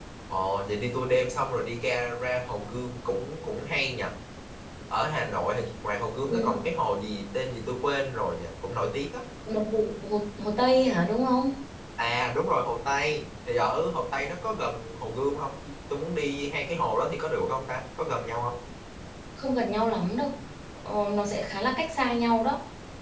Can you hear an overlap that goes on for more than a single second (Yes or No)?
No